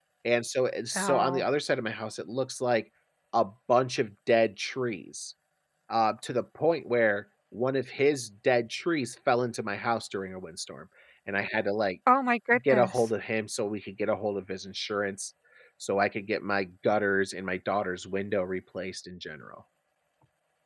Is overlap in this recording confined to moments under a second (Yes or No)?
Yes